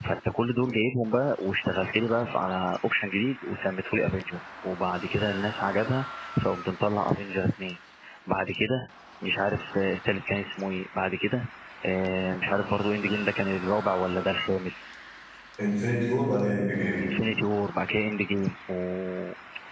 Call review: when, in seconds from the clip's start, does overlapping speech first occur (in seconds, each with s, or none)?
none